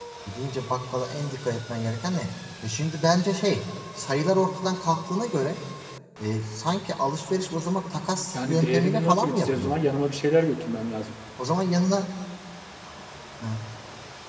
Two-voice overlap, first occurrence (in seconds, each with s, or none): 8.1 s